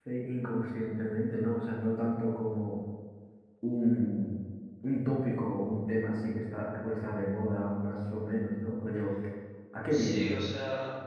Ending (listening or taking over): taking over